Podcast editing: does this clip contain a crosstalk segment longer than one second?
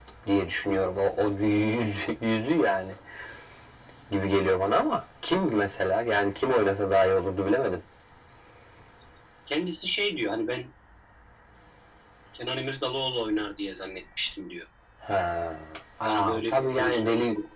Yes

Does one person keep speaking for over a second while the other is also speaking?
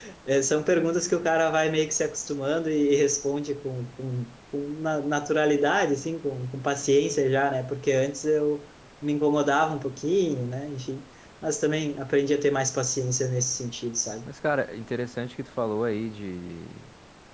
No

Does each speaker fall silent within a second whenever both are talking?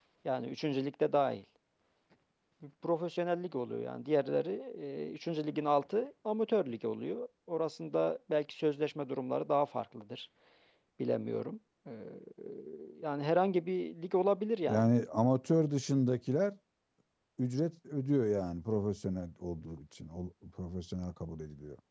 Yes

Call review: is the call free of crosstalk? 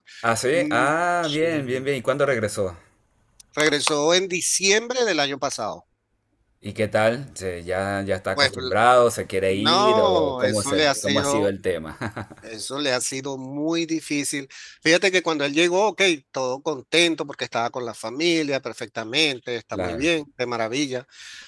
No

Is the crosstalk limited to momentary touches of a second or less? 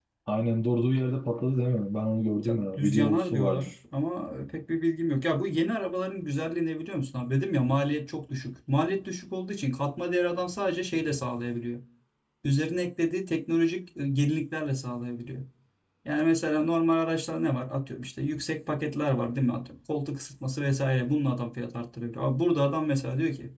No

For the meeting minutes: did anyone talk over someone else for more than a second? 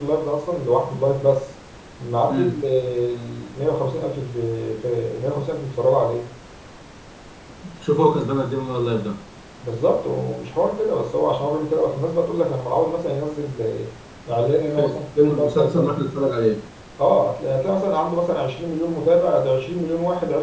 Yes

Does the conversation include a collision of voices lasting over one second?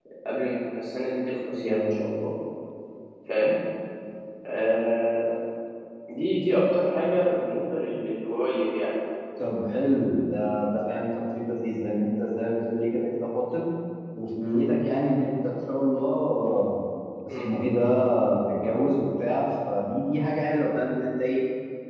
No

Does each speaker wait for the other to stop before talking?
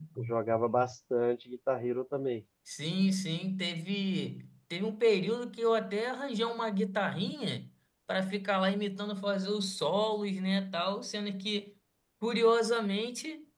Yes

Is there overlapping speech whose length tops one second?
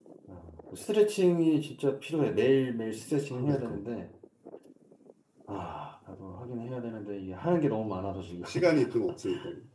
No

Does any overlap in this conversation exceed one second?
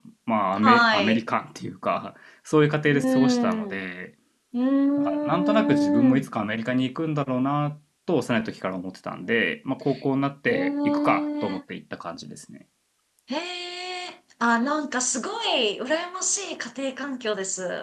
Yes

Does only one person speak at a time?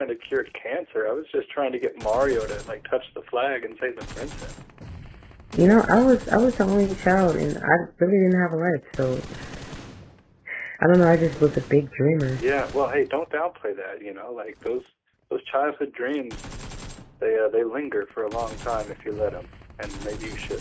Yes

